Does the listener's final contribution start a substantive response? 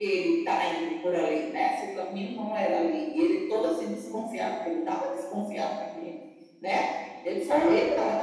No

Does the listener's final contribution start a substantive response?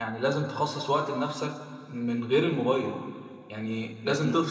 No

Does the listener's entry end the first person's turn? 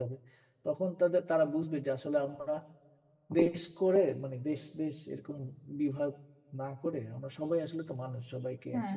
Yes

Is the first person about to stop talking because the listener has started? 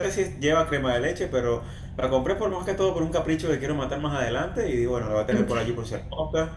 No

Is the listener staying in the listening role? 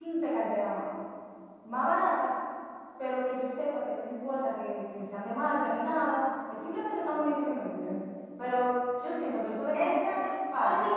No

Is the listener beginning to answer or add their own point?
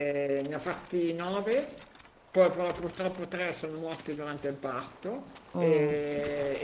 No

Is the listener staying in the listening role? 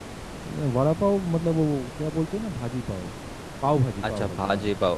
No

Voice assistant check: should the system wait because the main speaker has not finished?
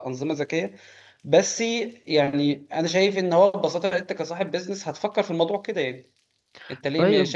Yes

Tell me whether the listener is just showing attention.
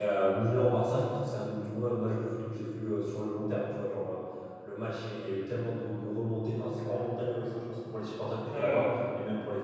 Yes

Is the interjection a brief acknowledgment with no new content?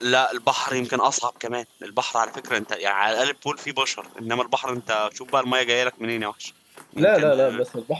No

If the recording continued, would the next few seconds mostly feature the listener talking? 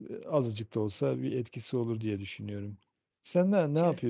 No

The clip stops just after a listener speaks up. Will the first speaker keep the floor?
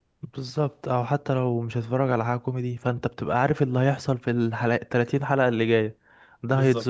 Yes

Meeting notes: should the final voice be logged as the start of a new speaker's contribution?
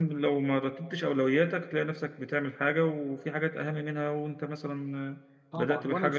Yes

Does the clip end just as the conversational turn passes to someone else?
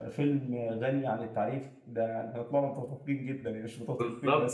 Yes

